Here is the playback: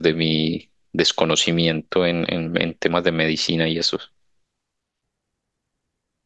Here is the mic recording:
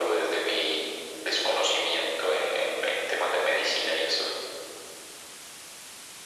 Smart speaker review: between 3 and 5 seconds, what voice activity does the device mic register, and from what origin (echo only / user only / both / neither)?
echo only